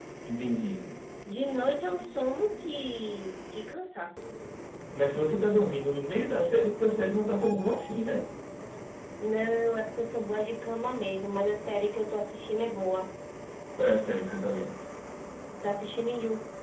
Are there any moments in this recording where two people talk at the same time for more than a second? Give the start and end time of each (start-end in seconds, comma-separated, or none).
none